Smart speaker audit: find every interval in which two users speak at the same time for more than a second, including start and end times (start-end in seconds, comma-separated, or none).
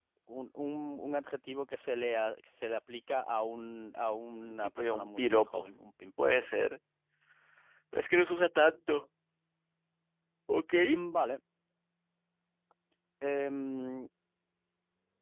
4.4-5.6